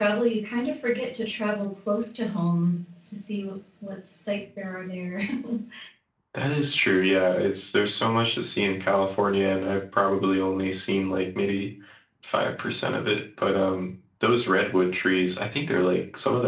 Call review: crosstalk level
none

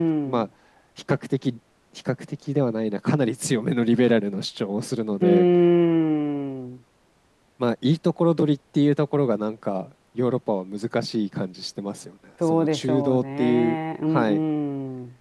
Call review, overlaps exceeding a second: present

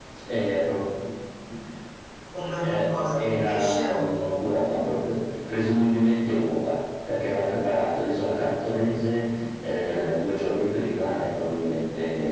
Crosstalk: present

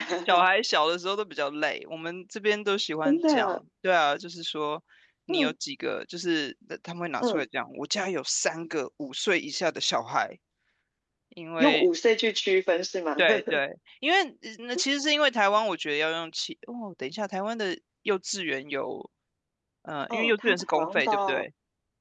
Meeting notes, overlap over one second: present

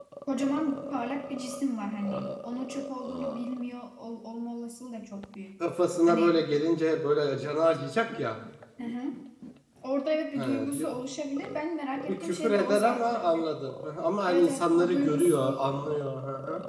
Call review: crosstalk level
present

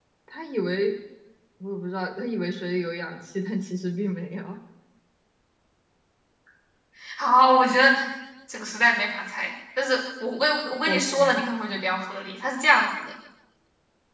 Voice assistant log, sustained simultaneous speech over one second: none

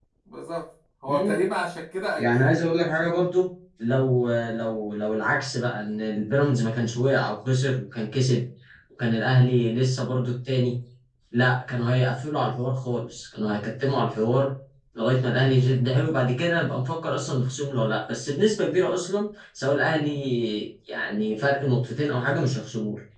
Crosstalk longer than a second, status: none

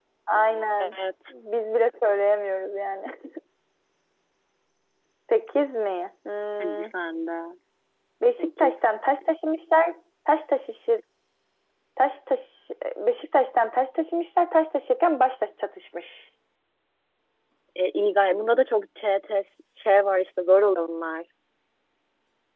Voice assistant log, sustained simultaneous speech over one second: none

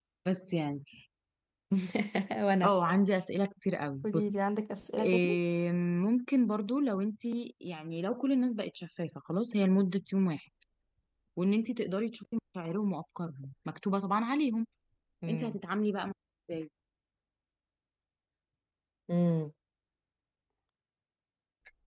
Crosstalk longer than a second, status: none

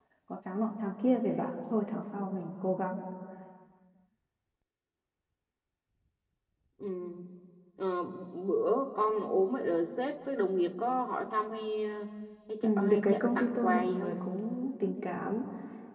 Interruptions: present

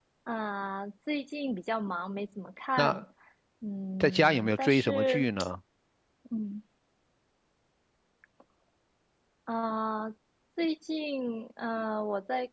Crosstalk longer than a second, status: present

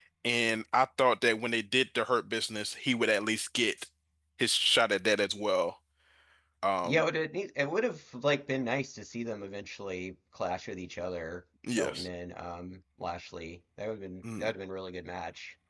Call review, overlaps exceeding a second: none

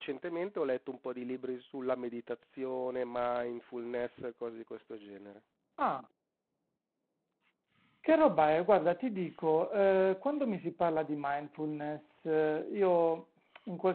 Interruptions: none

